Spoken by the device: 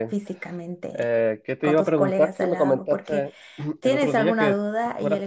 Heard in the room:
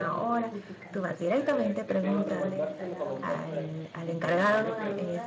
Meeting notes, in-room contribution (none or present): present